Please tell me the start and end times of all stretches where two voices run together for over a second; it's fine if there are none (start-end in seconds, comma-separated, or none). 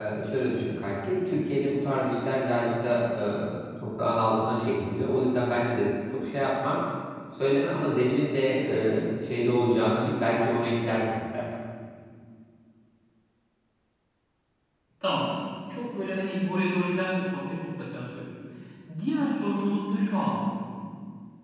none